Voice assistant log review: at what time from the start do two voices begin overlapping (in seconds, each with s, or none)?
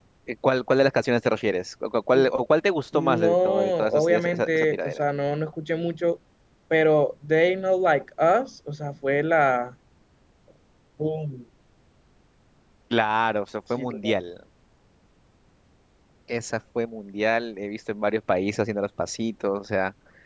2.9 s